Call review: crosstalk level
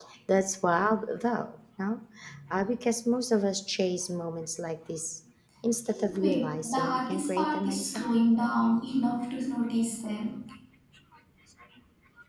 present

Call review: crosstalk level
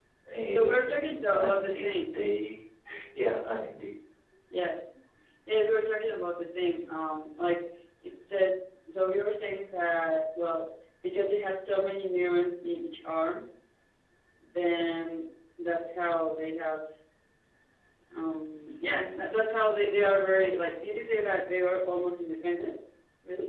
present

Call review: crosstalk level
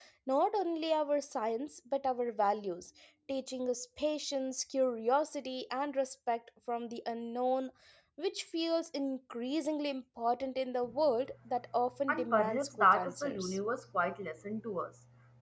present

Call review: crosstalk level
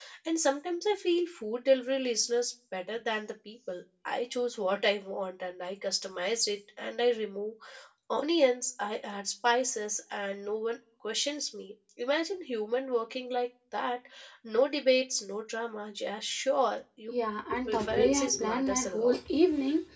present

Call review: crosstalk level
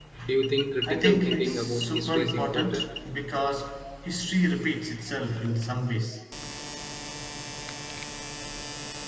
present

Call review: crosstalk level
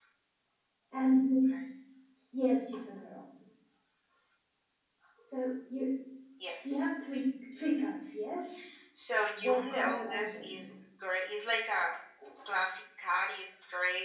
present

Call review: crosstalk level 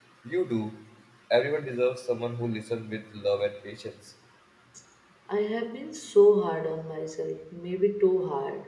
none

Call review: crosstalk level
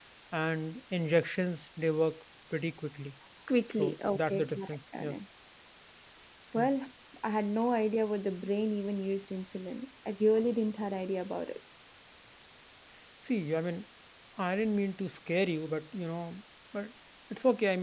present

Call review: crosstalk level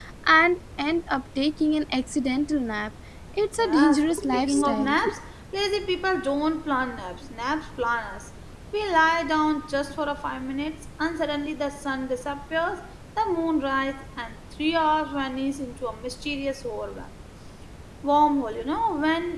present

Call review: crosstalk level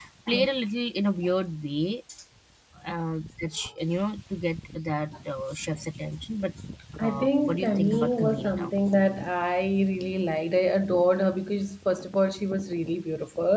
present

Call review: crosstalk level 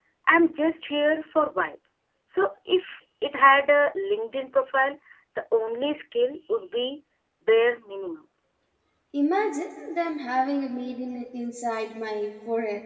none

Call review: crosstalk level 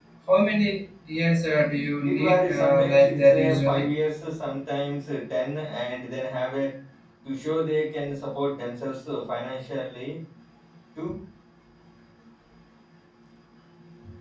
present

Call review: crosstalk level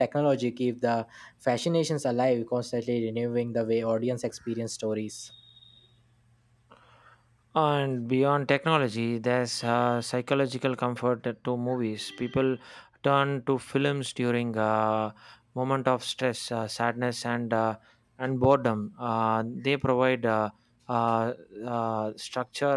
none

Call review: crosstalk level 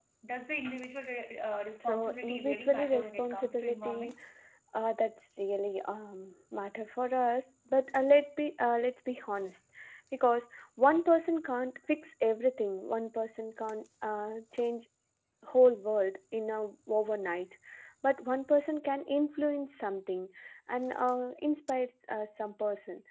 present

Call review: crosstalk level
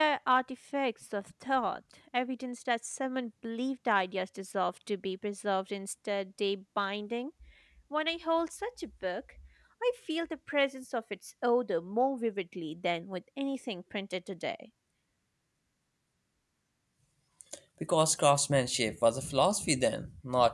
none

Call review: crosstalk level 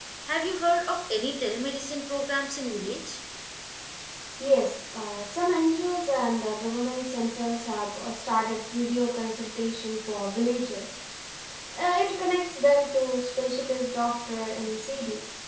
none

